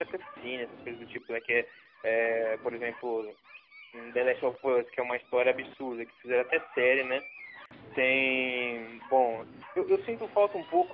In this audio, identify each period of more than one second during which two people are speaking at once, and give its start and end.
none

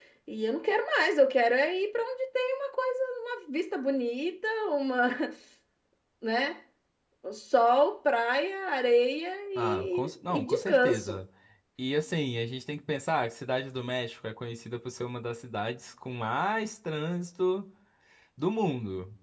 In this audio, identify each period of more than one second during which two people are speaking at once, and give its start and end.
9.6-11.2

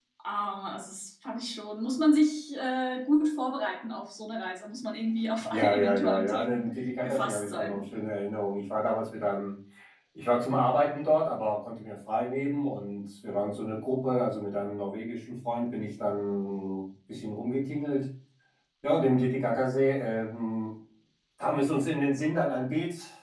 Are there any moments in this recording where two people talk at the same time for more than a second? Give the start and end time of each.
5.5-7.8

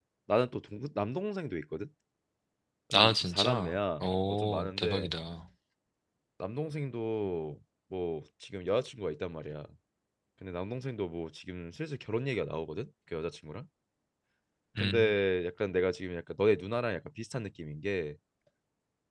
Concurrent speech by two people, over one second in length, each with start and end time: 2.9-5.1

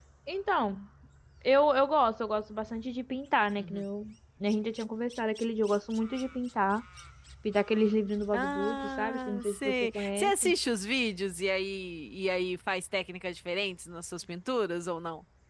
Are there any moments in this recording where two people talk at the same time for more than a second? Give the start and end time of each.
8.3-10.5

